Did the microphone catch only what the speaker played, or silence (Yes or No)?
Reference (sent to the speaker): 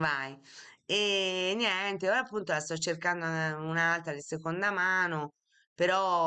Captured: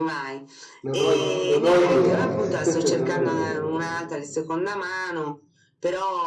No